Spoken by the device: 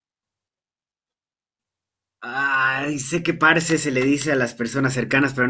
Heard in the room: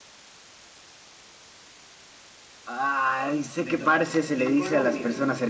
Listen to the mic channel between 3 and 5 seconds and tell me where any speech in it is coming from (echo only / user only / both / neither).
both